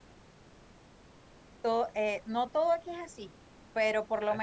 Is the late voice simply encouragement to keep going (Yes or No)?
Yes